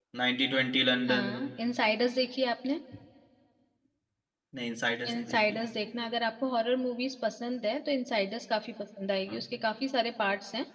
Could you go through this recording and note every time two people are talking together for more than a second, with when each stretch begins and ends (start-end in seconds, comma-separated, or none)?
none